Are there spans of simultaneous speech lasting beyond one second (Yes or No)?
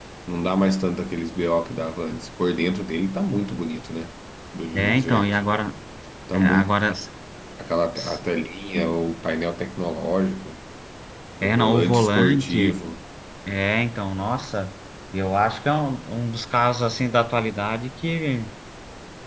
Yes